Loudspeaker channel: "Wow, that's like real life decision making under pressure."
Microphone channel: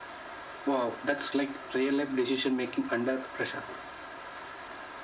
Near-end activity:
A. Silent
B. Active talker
A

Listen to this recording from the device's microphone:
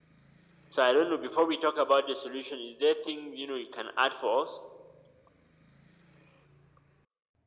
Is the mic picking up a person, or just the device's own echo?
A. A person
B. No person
B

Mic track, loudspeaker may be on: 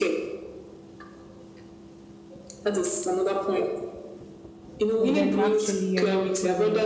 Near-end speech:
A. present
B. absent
A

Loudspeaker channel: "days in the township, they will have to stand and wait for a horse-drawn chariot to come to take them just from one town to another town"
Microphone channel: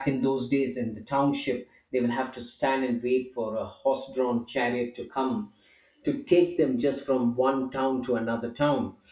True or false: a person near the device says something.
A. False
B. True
A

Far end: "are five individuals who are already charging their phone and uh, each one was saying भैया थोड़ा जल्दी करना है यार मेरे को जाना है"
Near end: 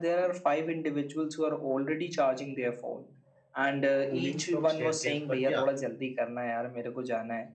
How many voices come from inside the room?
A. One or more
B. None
A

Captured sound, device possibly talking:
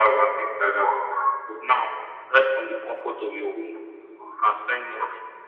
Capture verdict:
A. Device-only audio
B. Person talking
A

